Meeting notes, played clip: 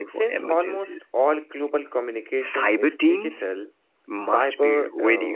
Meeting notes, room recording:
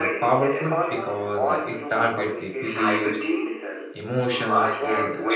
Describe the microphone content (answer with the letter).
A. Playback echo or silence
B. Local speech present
B